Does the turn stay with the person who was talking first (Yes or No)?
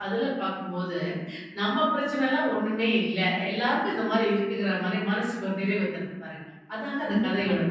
No